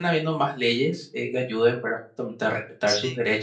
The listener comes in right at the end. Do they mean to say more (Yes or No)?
No